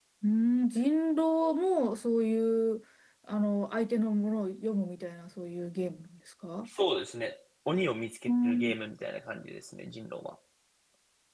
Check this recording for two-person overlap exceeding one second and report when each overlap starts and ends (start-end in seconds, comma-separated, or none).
none